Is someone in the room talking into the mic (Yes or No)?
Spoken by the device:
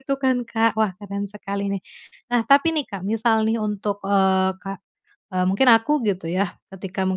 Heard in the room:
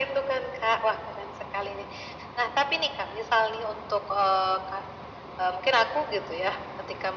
No